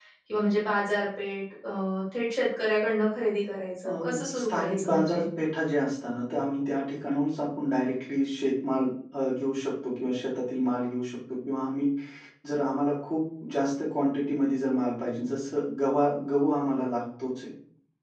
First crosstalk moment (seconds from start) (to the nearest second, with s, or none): 4 s